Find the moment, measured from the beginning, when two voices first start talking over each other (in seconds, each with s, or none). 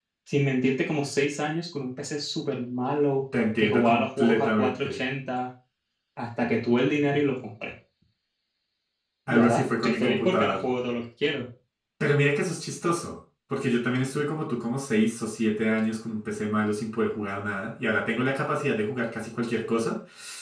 3.6 s